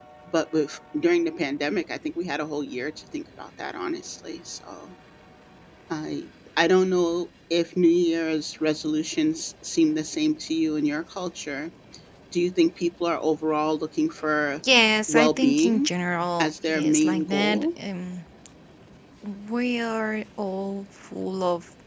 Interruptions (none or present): present